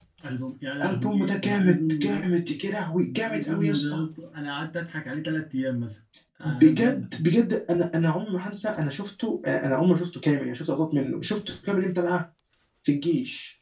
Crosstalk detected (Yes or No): Yes